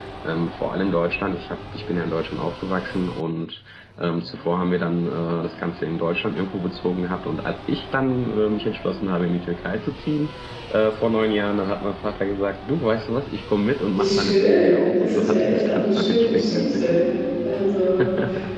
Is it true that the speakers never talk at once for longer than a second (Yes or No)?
No